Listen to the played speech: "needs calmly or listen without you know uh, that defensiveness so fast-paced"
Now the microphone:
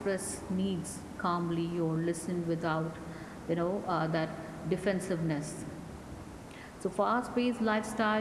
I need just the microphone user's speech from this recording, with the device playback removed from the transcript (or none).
none